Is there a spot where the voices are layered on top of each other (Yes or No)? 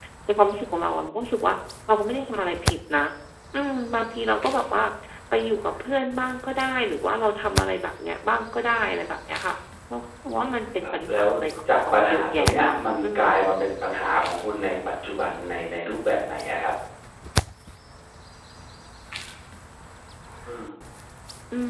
Yes